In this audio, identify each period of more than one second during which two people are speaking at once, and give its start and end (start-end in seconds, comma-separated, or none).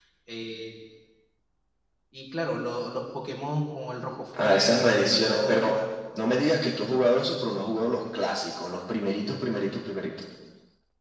4.4-5.9